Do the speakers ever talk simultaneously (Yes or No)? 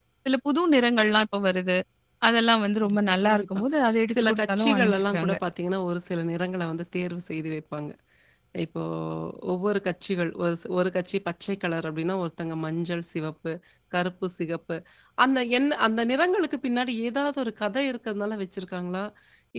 Yes